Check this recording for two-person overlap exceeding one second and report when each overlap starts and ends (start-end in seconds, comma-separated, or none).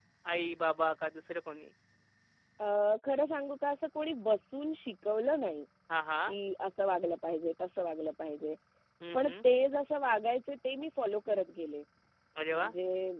none